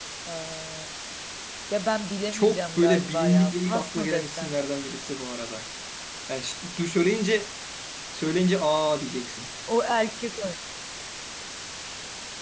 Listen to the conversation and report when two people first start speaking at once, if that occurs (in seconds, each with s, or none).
2.3 s